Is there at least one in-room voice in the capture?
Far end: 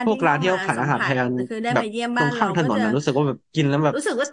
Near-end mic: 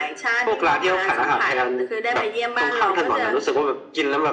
No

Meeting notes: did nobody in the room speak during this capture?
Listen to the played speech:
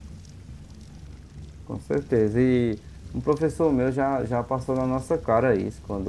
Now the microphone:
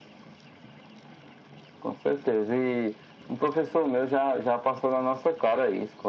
Yes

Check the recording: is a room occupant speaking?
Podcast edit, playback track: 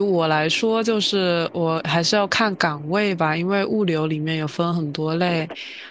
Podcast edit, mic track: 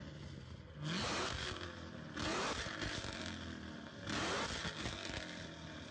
No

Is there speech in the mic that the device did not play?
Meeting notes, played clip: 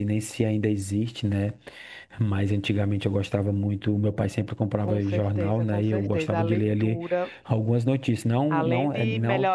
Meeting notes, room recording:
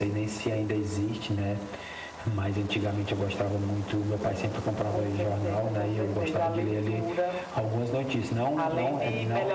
No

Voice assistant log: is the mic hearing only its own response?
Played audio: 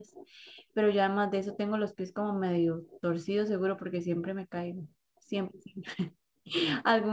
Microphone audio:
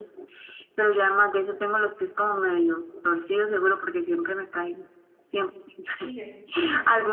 No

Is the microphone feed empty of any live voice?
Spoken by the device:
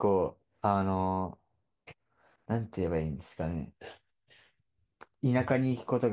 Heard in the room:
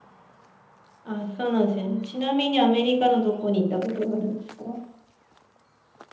No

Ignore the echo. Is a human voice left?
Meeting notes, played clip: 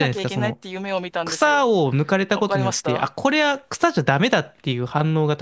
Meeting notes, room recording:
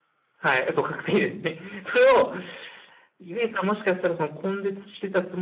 Yes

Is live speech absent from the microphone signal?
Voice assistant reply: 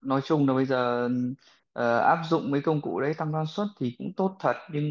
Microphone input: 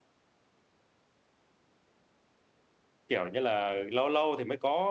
No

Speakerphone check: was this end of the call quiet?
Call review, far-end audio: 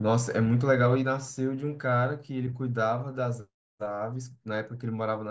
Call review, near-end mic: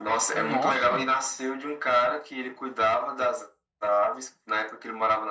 No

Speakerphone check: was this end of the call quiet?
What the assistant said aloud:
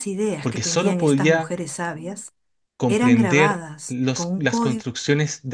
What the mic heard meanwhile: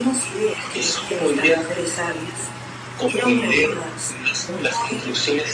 Yes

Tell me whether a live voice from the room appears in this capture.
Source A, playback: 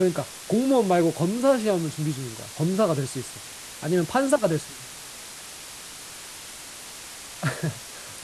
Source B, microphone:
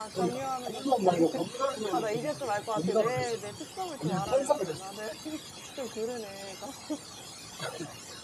Yes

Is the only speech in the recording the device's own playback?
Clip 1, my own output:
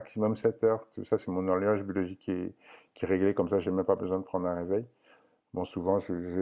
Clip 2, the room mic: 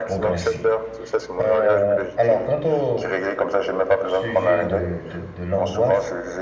No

